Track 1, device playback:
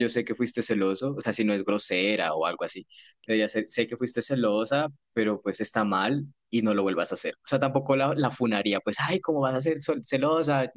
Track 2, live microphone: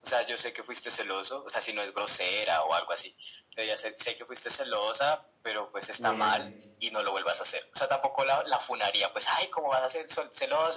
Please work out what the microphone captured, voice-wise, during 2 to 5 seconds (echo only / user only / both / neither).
echo only